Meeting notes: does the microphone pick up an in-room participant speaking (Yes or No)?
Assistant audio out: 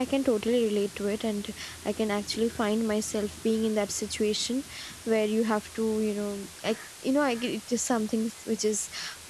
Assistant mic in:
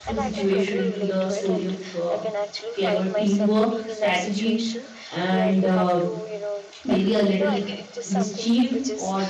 Yes